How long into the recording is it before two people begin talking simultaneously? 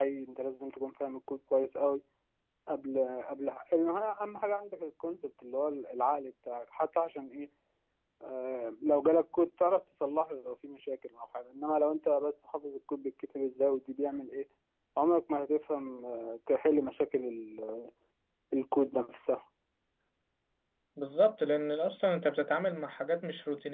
none

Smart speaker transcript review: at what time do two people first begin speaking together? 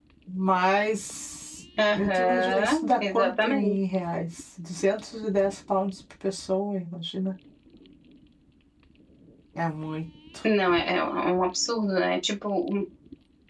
2 s

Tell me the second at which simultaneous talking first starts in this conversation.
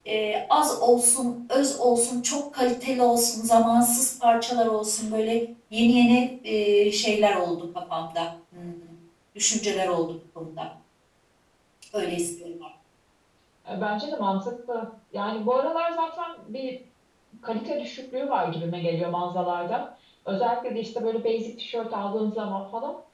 none

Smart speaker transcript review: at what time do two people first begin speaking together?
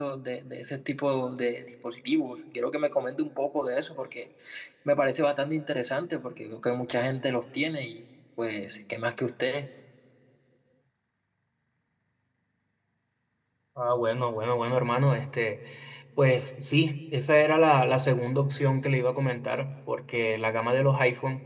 none

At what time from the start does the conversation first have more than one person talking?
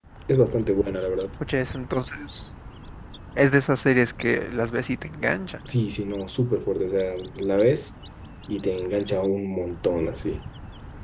none

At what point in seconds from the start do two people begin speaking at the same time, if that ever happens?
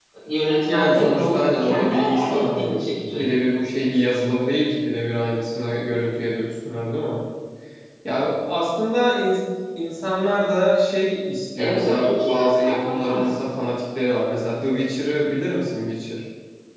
1 s

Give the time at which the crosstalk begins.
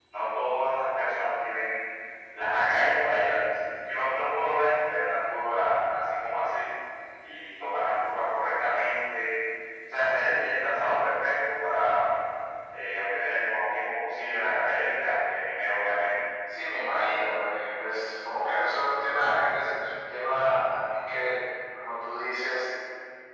none

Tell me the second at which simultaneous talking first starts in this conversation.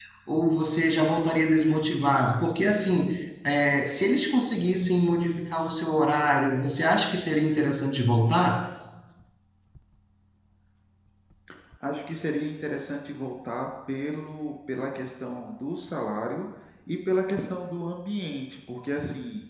none

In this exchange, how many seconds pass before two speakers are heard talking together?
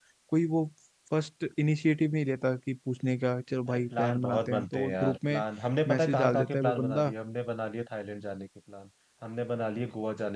4 s

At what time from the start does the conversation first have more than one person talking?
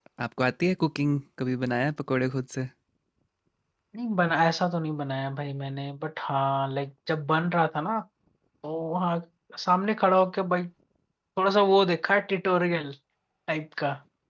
none

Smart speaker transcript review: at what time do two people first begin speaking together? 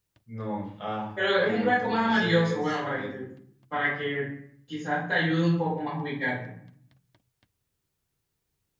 1 s

